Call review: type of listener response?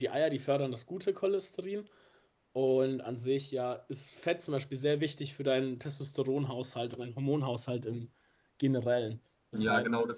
taking over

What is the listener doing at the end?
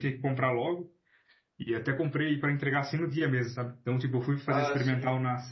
listening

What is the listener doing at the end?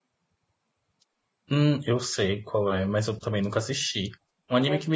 listening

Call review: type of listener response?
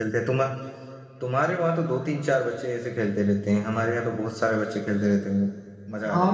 taking over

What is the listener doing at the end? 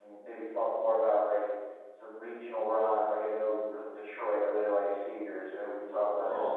taking over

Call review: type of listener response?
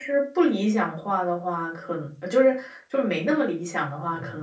listening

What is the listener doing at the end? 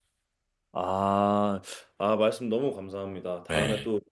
listening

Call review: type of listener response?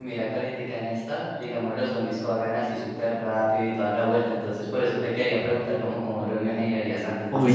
listening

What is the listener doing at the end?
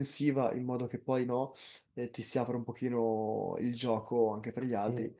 listening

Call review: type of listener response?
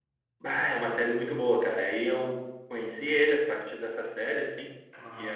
listening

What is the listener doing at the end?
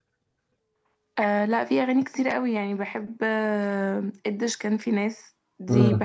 listening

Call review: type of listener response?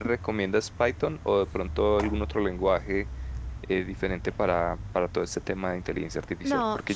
taking over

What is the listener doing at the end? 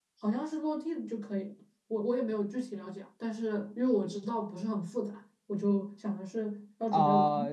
taking over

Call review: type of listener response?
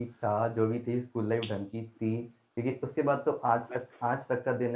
listening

